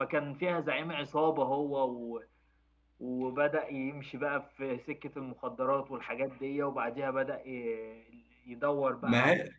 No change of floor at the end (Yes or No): Yes